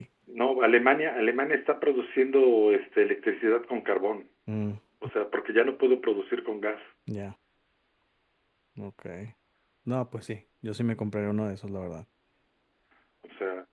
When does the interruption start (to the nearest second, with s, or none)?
none